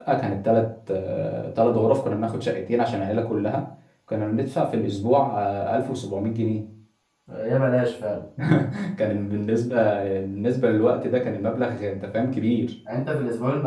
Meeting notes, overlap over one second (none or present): none